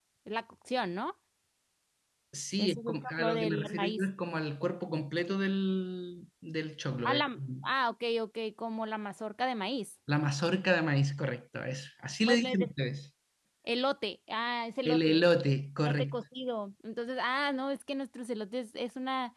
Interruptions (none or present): present